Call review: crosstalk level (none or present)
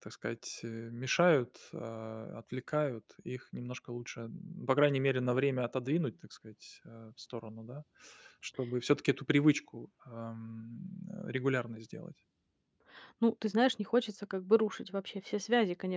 none